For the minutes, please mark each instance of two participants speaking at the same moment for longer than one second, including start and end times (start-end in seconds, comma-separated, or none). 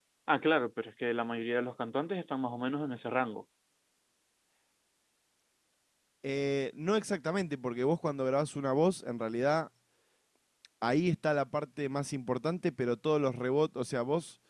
none